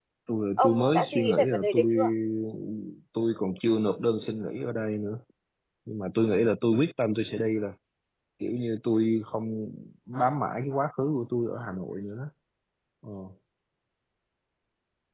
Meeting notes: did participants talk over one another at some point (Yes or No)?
Yes